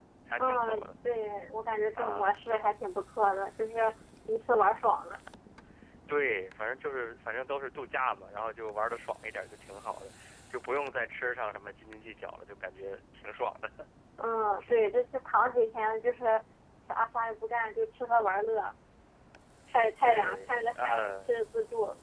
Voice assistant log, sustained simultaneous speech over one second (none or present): present